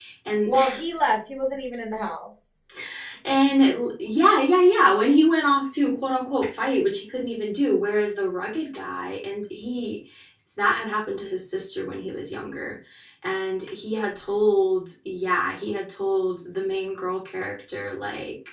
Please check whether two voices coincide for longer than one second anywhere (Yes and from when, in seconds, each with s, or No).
No